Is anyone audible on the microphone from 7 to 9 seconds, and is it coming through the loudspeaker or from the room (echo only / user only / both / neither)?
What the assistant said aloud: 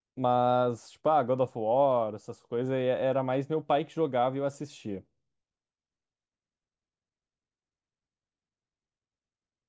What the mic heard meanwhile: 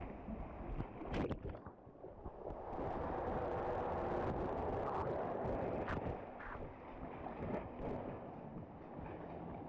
neither